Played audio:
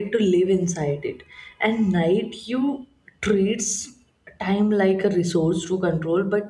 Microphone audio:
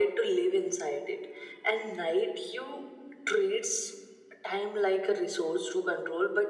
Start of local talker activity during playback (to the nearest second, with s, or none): none